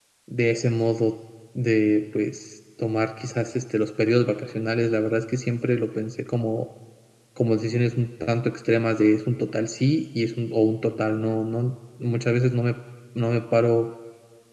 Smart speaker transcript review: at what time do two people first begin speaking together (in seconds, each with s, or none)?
none